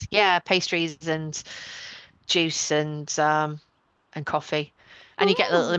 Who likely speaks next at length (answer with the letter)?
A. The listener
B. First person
B